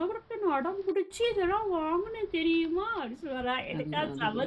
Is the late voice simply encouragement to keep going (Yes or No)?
Yes